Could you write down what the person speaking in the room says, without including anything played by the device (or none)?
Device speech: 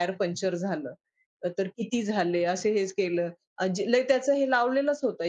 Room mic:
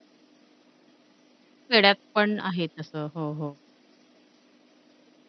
खेड्यात पण आहे तसं. हो, हो.